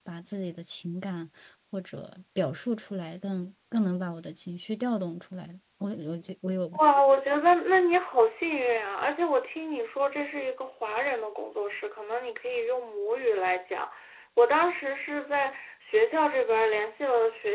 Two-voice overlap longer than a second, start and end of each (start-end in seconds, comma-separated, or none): none